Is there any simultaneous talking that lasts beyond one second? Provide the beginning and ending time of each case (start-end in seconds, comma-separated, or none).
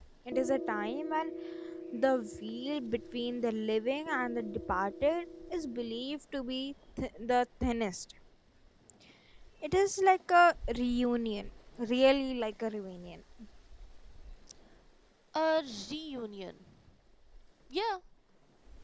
none